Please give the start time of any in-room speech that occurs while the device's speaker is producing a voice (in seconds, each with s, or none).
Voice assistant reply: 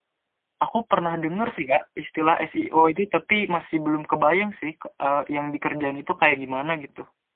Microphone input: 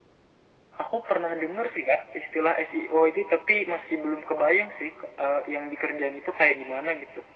none